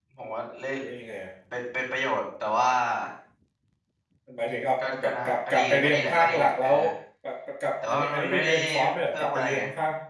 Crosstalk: present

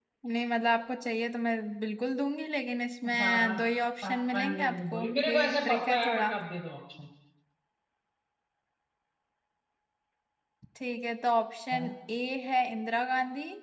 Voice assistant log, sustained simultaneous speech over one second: present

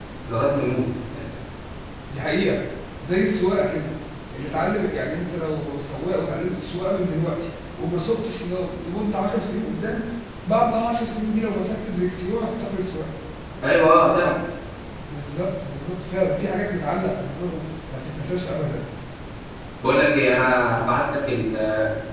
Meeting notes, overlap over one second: none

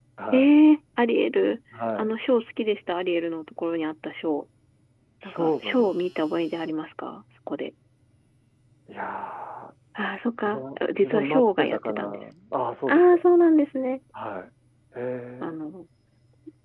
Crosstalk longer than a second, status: present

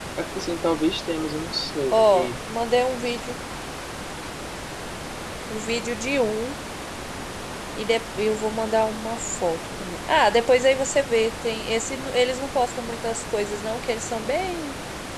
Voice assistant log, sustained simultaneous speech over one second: none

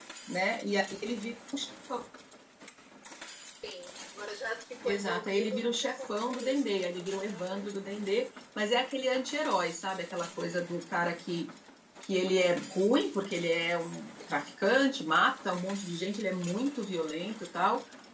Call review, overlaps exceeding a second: present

